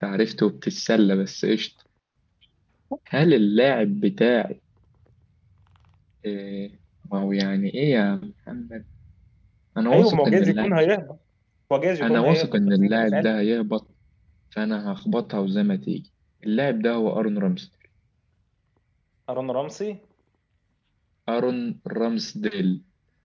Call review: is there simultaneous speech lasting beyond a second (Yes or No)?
Yes